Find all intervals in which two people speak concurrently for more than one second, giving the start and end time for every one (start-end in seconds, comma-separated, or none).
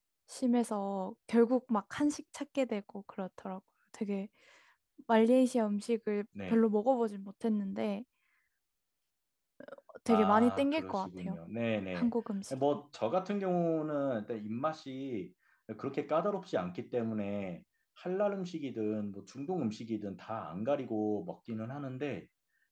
10.1-11.4